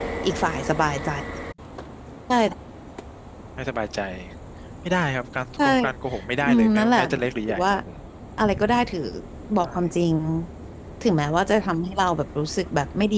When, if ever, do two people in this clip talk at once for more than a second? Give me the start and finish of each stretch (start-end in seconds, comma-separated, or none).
6.4-7.7